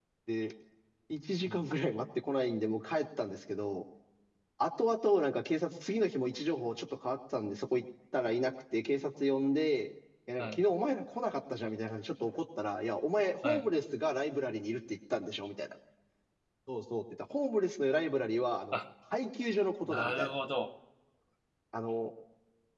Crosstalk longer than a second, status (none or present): none